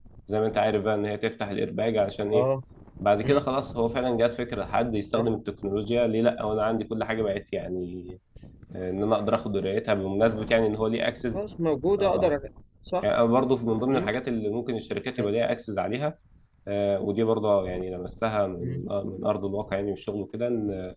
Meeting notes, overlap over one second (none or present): none